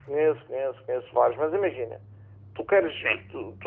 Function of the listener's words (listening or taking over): listening